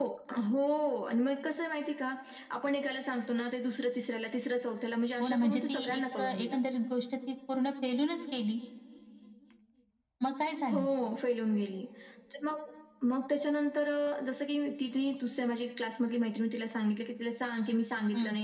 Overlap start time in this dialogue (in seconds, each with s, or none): 5.2 s